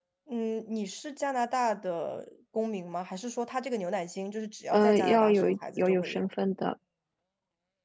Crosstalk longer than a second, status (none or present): present